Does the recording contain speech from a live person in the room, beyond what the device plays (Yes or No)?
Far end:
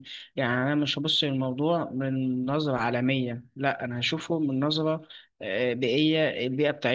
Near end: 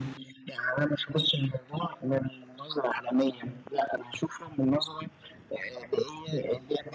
No